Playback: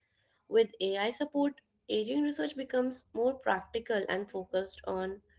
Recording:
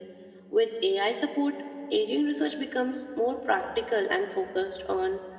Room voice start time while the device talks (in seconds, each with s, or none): none